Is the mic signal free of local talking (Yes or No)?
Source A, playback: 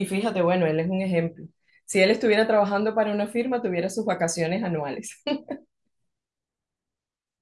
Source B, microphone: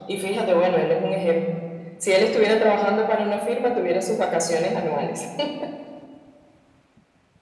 Yes